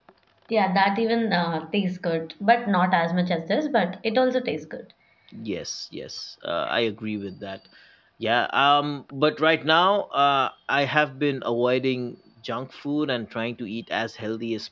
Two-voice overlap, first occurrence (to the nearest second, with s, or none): none